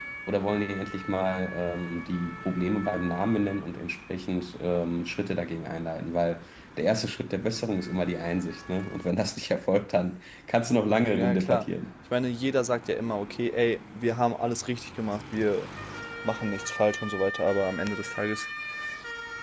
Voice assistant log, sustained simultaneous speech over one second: none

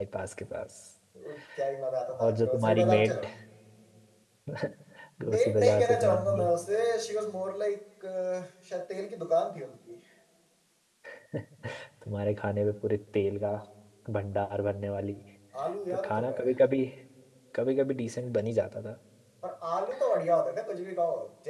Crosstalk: present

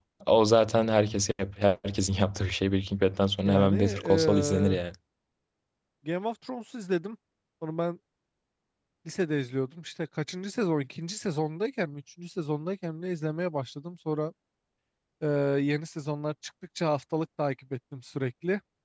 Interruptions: present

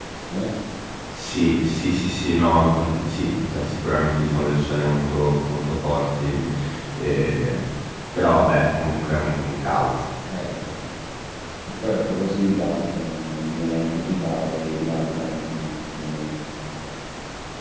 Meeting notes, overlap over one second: none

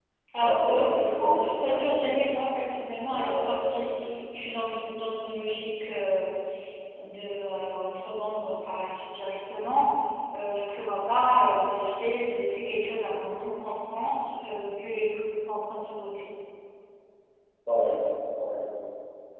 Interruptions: present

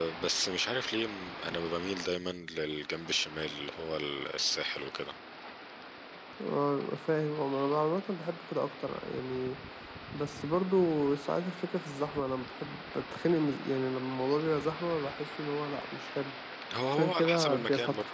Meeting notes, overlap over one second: present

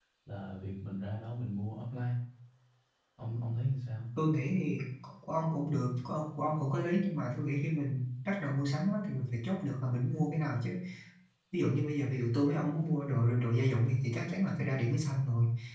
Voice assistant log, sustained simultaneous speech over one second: none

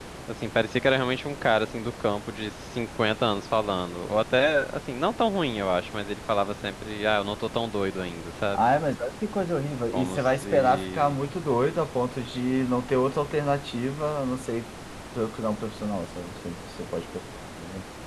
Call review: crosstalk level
present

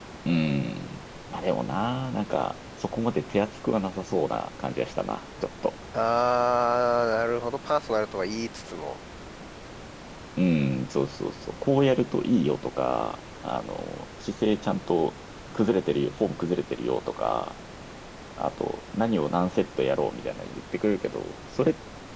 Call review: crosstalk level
none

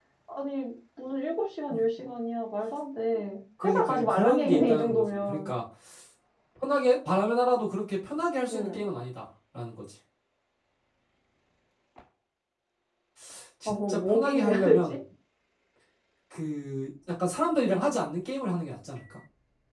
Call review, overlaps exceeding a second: present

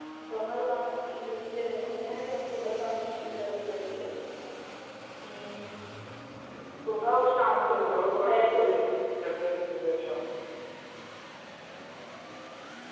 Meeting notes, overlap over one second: present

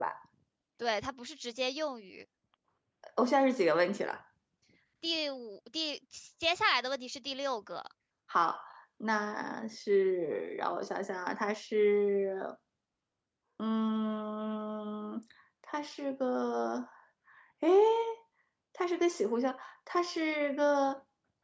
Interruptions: none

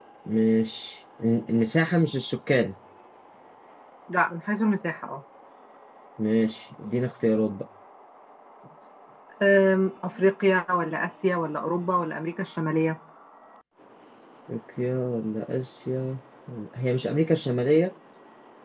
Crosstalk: none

